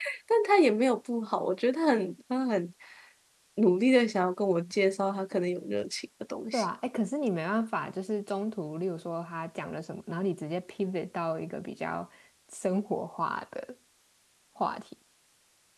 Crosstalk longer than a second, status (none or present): none